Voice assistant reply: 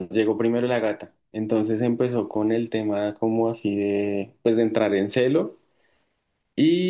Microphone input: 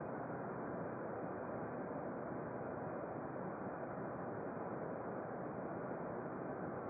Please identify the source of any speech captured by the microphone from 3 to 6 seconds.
neither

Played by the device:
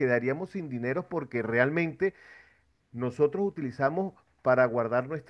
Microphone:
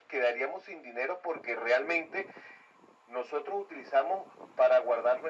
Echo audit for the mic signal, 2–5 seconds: echo only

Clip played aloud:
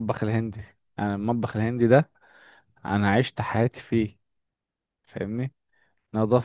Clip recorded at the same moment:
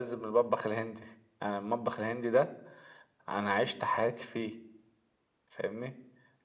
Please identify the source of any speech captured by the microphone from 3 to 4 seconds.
echo only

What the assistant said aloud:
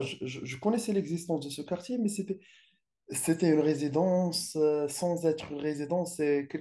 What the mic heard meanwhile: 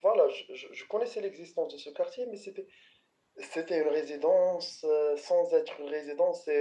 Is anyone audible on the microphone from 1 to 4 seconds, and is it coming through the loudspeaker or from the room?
echo only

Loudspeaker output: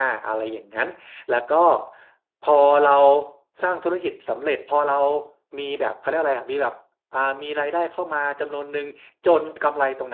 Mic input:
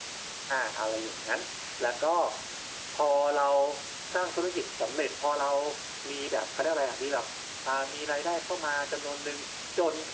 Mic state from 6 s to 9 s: echo only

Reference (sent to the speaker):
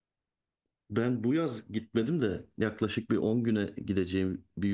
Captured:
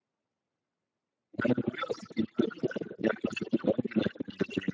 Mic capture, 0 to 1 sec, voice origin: neither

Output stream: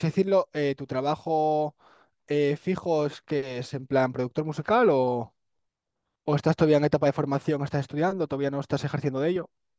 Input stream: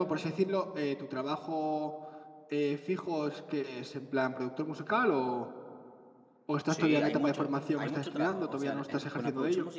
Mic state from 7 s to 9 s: both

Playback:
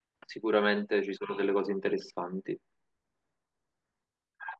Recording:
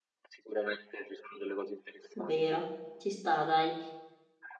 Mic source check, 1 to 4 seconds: both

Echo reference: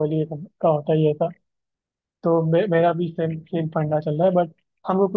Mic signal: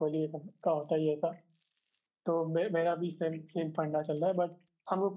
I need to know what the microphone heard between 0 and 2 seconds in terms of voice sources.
echo only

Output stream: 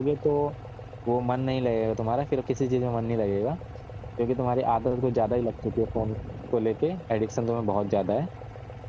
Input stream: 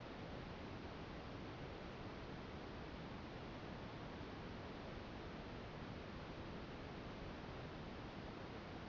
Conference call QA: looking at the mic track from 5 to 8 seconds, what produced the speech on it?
neither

